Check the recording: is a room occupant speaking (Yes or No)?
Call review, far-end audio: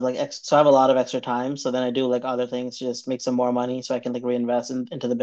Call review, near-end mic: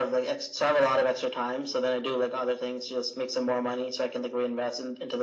No